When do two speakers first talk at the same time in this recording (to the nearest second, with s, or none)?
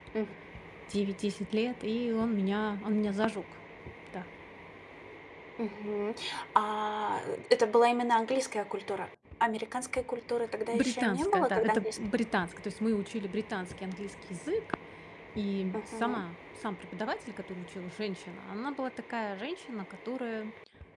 11 s